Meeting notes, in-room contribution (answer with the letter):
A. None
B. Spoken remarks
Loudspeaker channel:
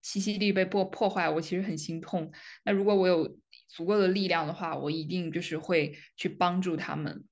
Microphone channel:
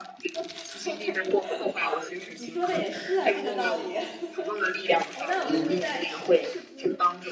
B